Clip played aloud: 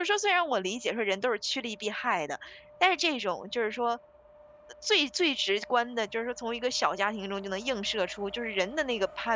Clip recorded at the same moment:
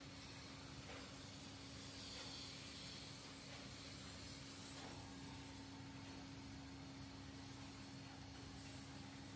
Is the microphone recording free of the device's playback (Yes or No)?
Yes